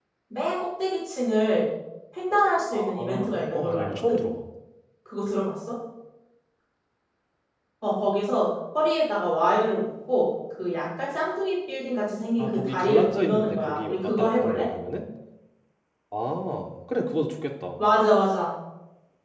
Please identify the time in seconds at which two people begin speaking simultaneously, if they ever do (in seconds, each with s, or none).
2.7 s